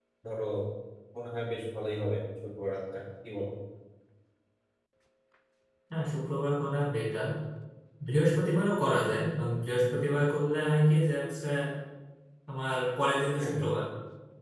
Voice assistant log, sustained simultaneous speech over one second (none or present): none